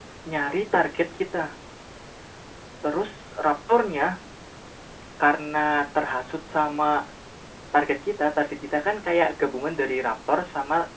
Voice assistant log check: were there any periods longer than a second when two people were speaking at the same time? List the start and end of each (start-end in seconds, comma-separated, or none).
none